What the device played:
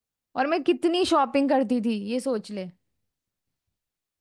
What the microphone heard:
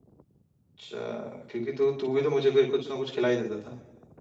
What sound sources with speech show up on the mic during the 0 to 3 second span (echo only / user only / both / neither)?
user only